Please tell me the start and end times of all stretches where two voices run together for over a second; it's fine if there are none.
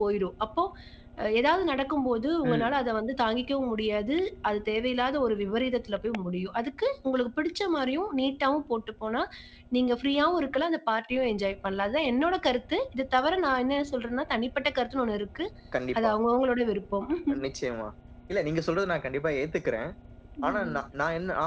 none

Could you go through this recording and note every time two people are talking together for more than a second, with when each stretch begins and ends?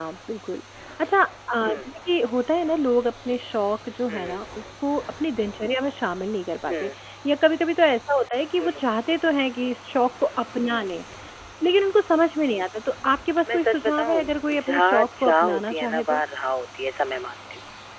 13.5-16.2

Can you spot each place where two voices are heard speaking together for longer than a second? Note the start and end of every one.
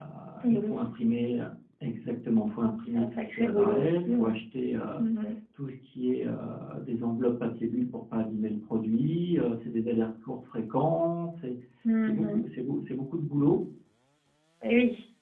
2.9-4.3

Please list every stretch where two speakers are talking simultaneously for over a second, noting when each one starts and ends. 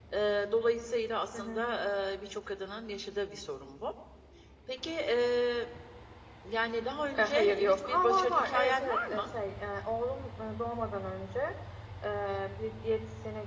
7.2-9.3

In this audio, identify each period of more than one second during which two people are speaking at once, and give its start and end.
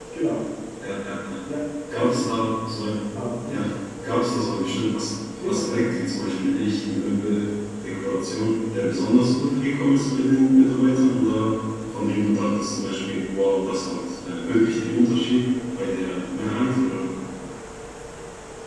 none

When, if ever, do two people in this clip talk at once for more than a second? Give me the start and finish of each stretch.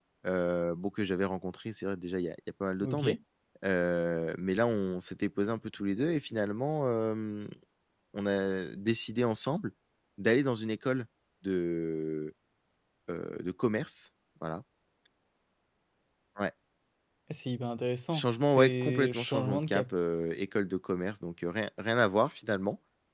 18.1-19.8

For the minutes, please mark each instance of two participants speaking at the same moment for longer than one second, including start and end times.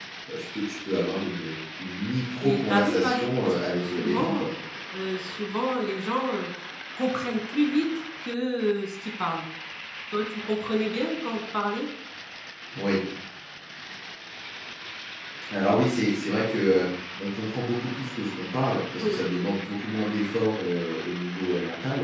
2.4-4.4

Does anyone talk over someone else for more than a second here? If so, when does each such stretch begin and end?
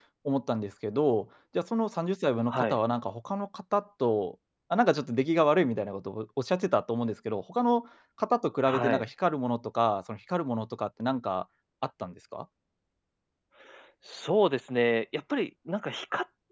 none

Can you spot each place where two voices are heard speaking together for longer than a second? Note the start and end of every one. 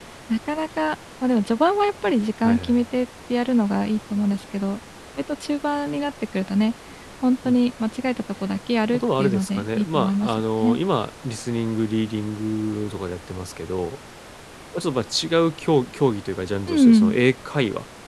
8.9-10.8

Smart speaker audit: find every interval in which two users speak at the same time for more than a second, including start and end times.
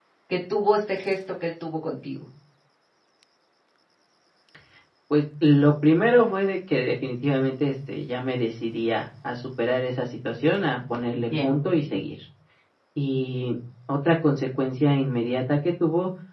none

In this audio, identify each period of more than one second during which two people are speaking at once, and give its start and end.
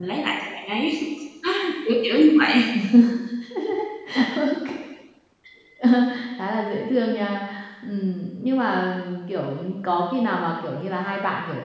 none

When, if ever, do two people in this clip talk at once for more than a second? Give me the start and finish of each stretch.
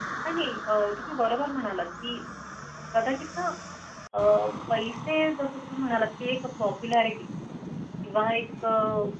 none

